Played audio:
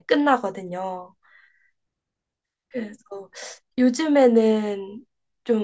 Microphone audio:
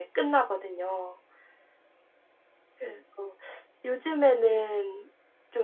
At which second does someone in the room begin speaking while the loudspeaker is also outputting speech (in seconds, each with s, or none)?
none